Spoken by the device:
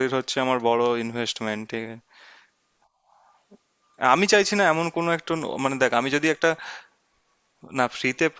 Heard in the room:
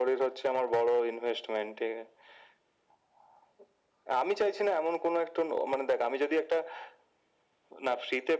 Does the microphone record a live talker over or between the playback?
No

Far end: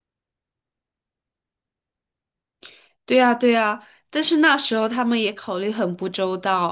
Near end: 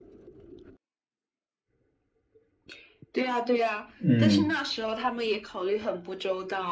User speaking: Yes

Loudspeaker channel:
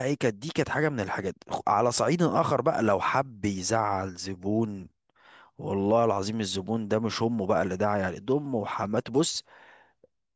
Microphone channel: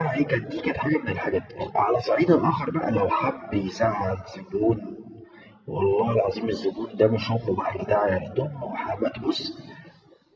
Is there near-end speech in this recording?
No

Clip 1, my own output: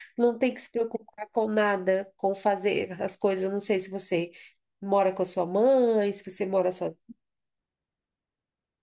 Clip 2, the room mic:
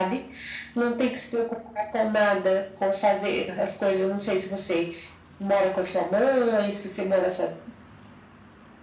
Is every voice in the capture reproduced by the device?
Yes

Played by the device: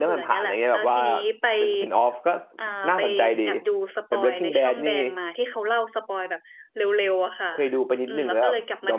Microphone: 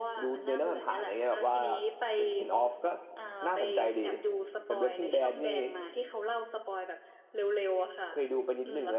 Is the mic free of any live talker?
Yes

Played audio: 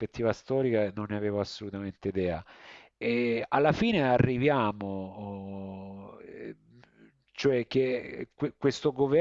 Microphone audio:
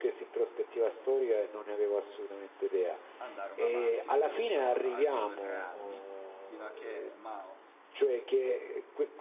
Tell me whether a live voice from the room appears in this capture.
Yes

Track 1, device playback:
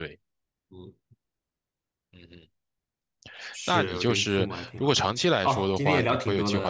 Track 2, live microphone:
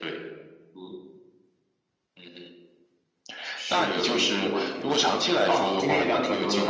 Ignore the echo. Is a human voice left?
No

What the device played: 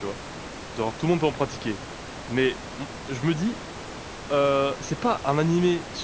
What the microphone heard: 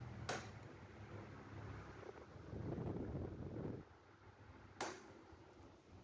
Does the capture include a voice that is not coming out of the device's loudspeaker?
No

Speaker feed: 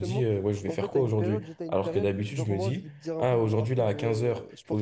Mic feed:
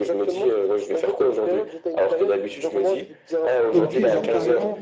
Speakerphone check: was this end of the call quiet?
No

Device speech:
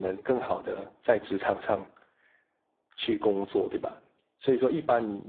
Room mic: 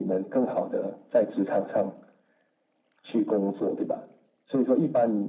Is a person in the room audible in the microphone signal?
No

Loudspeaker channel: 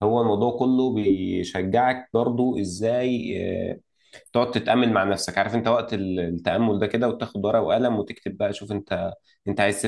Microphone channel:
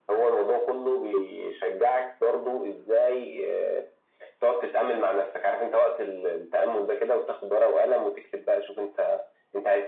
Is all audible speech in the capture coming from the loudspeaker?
Yes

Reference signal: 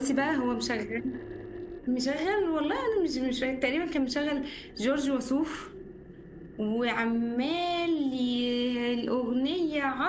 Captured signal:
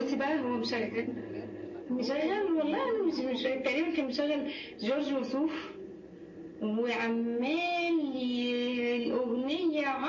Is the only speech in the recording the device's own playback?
No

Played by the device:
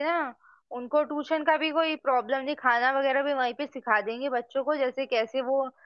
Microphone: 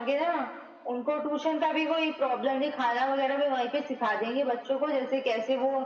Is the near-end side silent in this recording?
Yes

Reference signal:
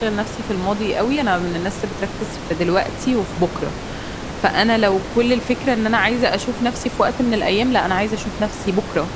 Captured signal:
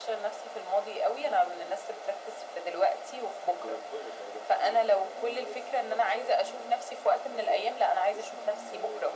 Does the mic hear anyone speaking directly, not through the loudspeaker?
Yes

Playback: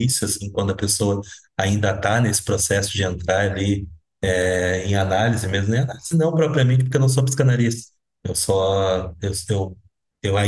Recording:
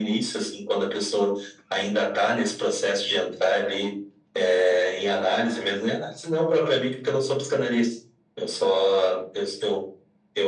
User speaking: No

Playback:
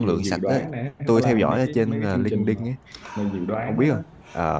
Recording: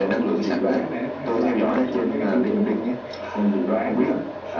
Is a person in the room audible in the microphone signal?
No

